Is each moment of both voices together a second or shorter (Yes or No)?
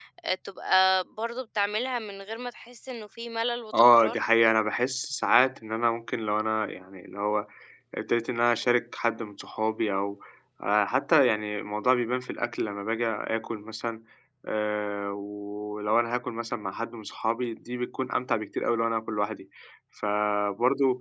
Yes